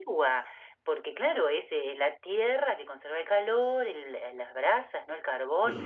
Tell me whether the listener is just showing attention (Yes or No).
Yes